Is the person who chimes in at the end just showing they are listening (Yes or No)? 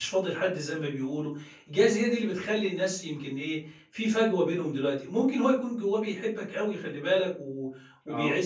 Yes